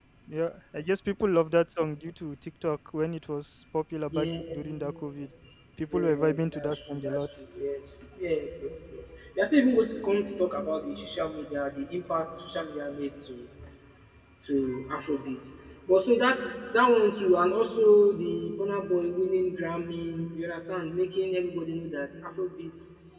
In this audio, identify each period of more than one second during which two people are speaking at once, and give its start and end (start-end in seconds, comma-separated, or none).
5.9-7.3